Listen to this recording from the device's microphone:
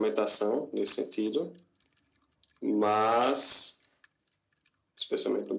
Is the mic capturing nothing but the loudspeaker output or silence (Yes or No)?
Yes